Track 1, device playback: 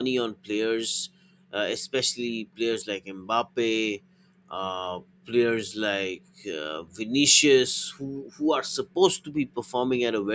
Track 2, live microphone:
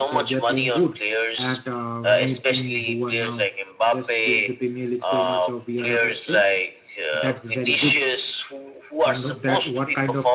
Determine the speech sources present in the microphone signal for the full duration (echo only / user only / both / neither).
both